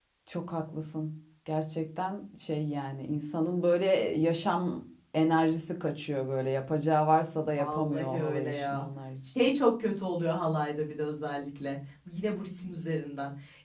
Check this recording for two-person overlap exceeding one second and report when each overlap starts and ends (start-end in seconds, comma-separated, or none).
7.6-8.8